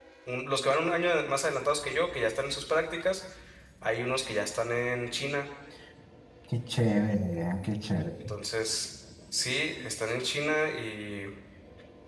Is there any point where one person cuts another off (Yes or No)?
No